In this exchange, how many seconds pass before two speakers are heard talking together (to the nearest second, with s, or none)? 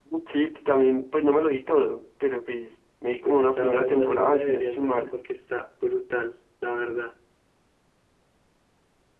3 s